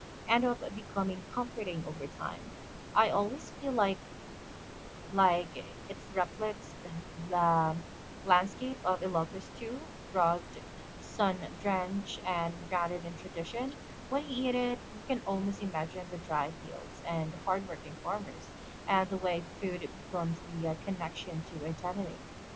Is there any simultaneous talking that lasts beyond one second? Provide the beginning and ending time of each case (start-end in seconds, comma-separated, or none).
none